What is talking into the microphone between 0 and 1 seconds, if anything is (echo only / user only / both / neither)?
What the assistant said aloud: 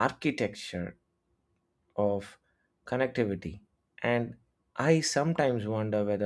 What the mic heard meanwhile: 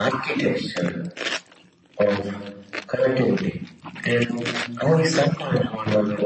echo only